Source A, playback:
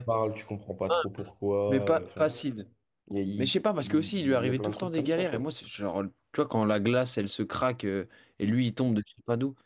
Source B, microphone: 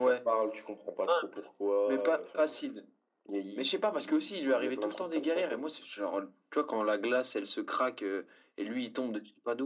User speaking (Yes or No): No